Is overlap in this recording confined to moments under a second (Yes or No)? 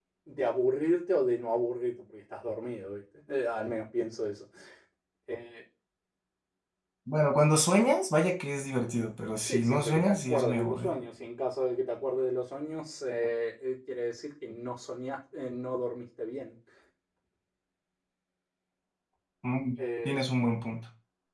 No